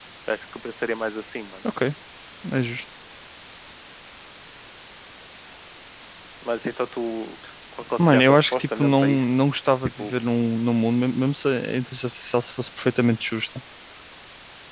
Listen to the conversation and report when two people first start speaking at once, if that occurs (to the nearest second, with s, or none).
8 s